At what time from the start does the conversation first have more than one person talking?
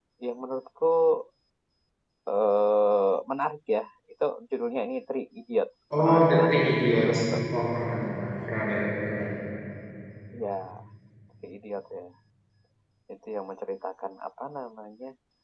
5.9 s

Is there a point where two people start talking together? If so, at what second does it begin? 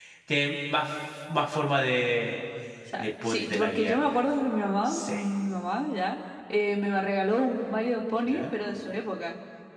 3.0 s

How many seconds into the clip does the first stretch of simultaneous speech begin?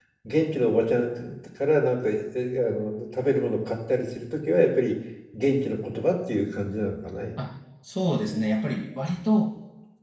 none

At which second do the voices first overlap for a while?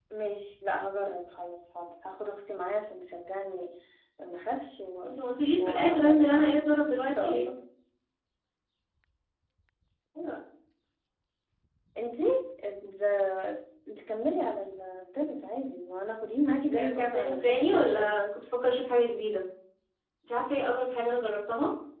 5.6 s

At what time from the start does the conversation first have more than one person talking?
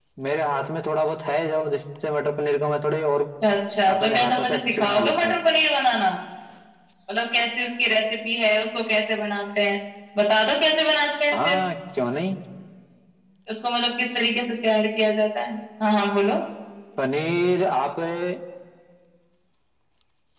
4.0 s

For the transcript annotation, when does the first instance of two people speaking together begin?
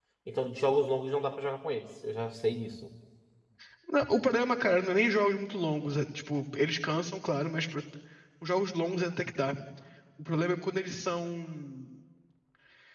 none

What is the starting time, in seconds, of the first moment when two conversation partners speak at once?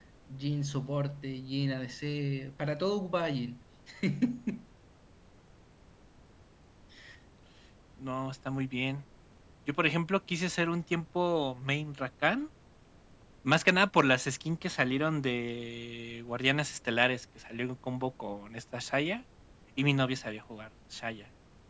none

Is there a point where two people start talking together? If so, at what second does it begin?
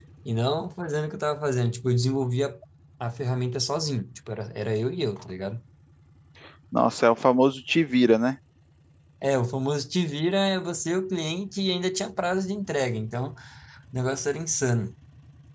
none

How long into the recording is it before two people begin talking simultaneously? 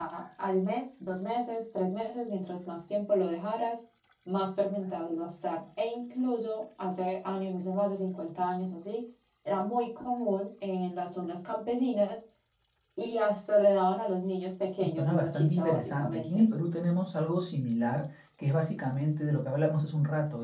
14.8 s

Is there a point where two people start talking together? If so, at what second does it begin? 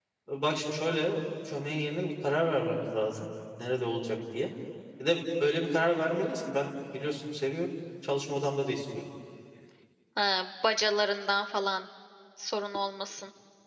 none

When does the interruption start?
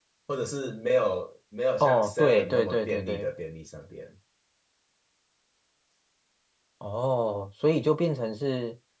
1.8 s

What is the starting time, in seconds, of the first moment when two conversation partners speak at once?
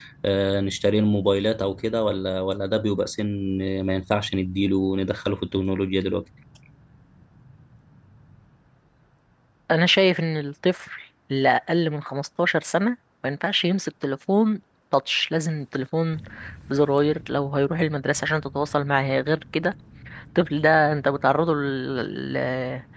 none

